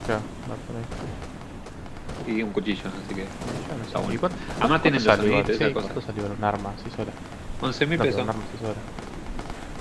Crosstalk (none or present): present